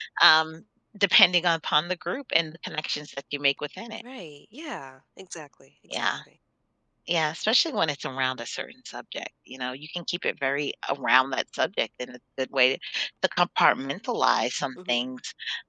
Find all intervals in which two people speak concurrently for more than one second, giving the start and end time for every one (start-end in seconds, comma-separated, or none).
none